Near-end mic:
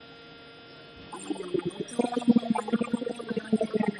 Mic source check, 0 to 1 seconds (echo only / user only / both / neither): neither